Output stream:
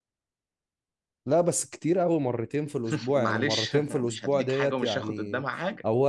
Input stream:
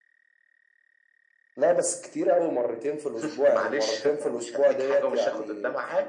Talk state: echo only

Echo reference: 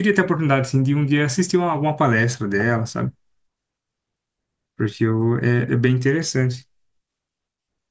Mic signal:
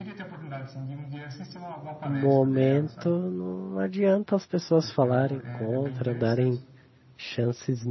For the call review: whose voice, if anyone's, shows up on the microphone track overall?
both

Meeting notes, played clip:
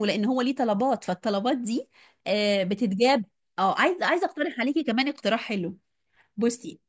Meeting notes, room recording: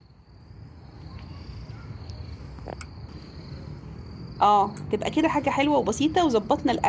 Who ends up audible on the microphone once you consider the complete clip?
user only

